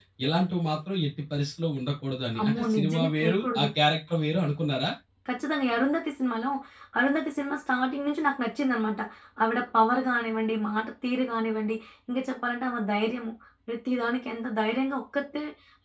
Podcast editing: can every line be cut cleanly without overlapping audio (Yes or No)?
No